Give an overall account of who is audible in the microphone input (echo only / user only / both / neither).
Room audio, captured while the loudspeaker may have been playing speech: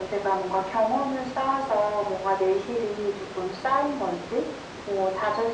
echo only